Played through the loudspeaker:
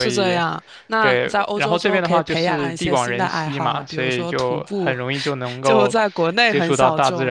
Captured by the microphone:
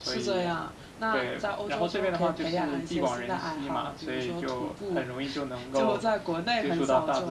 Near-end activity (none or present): none